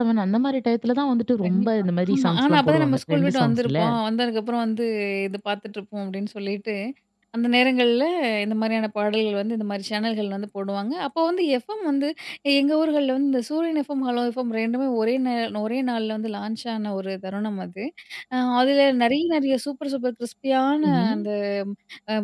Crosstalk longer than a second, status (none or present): present